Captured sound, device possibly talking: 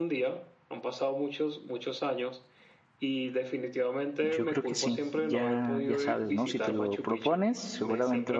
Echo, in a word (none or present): present